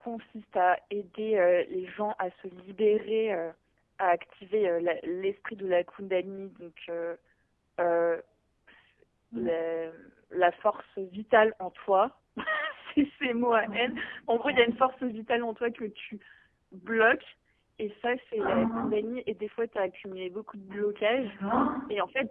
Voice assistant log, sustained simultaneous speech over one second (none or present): none